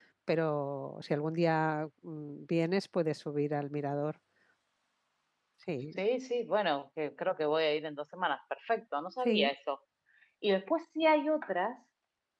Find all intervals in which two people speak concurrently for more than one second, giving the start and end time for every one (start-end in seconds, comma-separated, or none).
none